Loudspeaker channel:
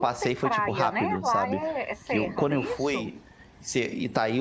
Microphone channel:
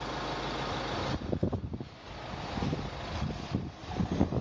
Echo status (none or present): none